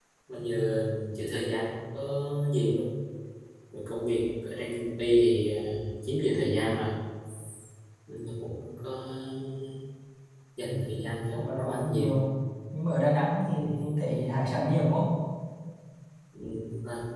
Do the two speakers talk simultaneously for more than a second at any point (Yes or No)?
Yes